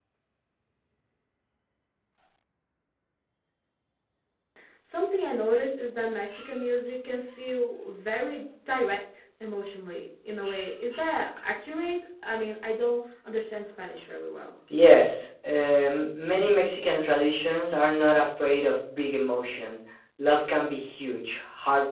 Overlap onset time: none

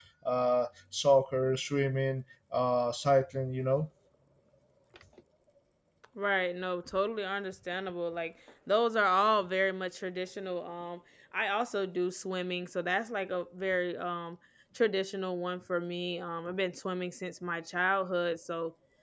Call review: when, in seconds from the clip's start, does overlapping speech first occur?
none

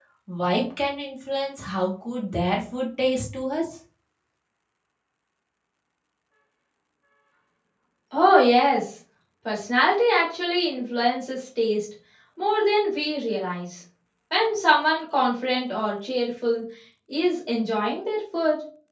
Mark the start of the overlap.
none

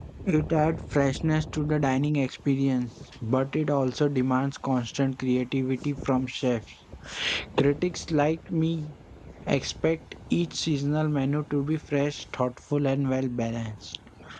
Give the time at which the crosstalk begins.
none

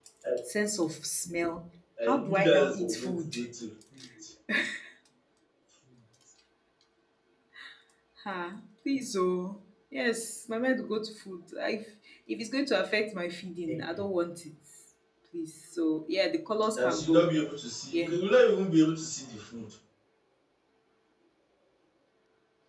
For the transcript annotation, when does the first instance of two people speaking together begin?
2 s

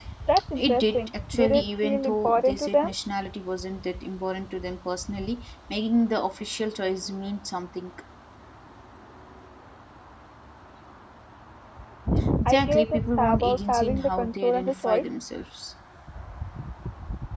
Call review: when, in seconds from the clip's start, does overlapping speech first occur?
1 s

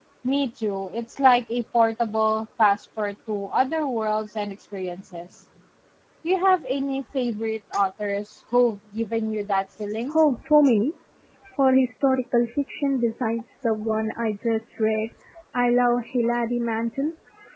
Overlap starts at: none

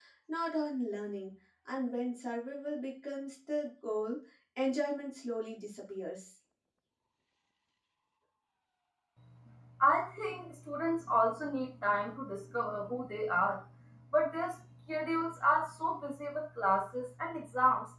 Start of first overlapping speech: none

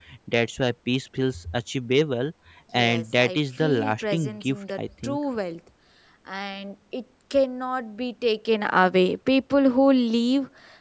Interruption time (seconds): 3 s

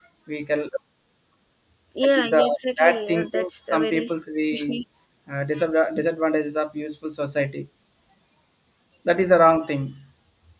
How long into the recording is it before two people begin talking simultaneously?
2 s

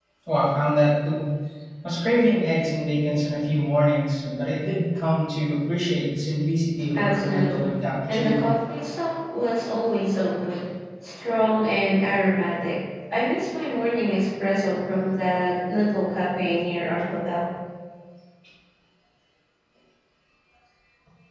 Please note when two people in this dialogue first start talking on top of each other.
7 s

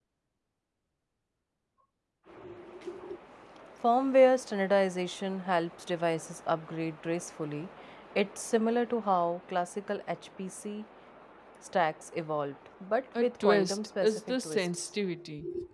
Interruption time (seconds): 13 s

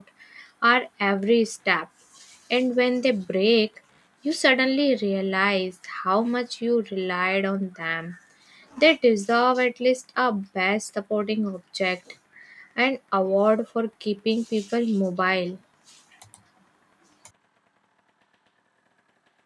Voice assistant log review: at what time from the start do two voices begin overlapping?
none

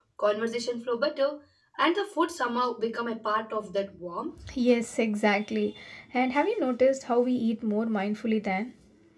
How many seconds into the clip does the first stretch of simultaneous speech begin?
none

